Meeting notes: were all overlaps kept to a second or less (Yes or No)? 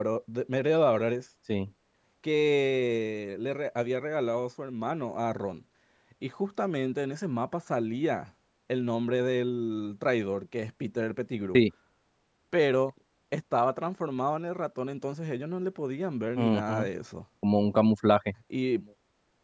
Yes